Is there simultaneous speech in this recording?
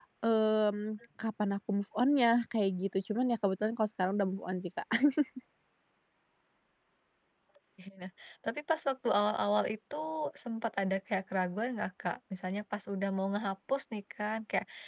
No

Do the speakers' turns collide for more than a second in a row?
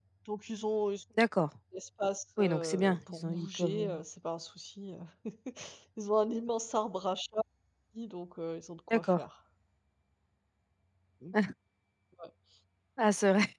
Yes, from 2.4 s

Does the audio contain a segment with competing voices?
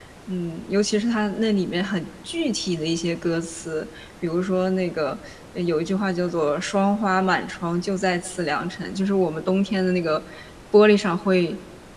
No

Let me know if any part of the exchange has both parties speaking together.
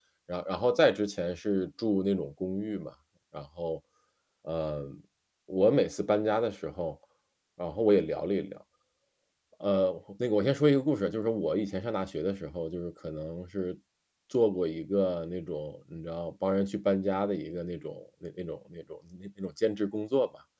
No

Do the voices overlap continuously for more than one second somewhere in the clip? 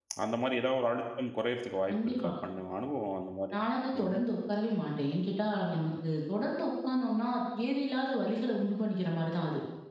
No

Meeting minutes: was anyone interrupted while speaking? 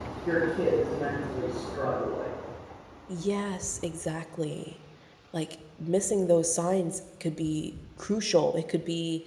No

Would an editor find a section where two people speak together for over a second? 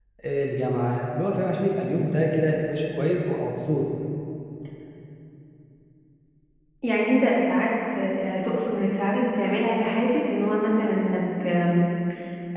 No

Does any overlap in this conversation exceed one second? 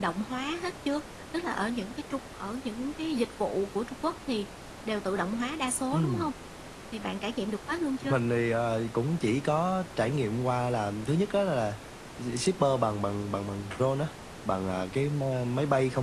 No

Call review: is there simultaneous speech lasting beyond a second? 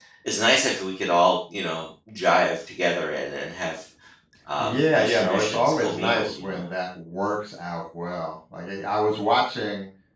Yes, from 4.6 s

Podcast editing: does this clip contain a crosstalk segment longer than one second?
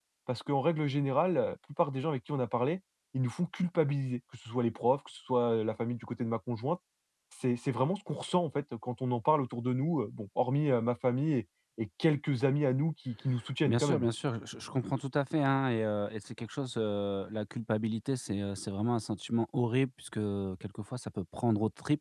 No

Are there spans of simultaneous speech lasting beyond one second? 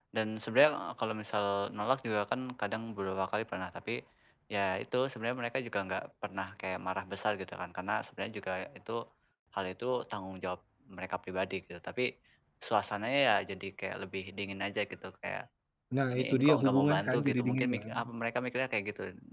Yes, from 16.2 s

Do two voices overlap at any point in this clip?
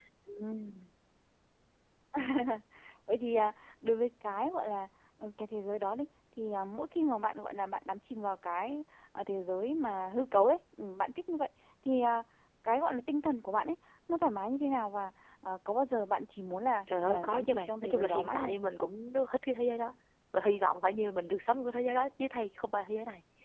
Yes, from 16.9 s

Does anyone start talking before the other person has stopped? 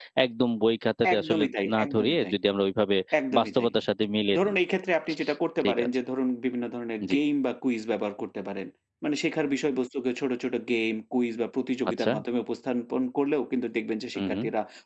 Yes, from 1.1 s

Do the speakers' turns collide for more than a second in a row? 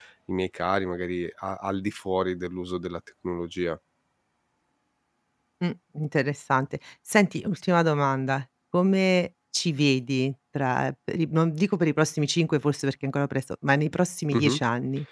No

